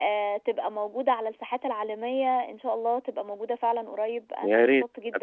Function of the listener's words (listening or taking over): taking over